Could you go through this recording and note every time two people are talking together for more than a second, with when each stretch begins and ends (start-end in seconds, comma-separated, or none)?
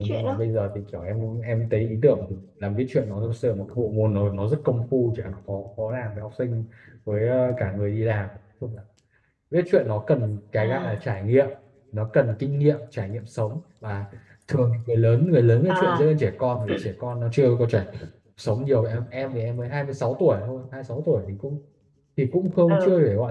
none